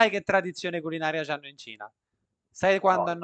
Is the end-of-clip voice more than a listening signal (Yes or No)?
No